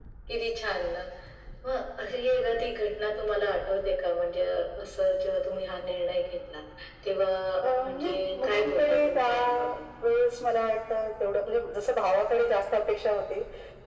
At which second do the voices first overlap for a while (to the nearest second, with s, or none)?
8 s